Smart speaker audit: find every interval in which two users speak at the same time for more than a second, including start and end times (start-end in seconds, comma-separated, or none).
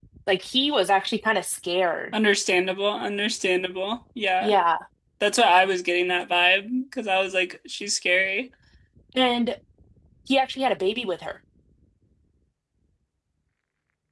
none